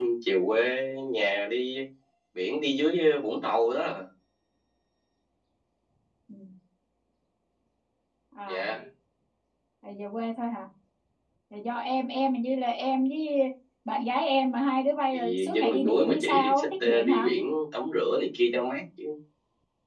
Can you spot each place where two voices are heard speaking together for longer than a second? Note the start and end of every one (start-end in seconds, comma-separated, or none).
15.1-17.3